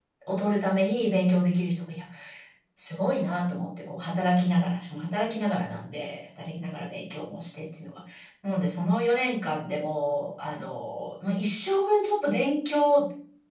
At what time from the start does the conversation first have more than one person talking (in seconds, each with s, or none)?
none